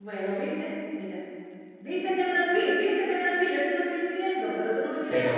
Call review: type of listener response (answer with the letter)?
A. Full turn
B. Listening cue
A